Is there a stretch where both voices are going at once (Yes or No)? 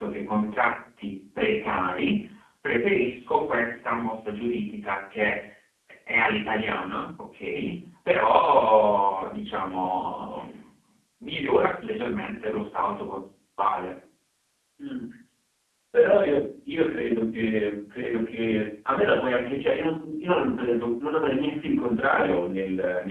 No